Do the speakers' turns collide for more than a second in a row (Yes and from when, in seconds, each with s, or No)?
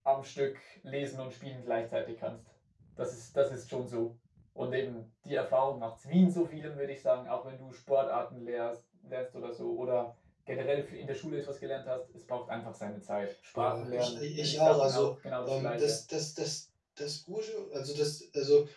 Yes, from 13.6 s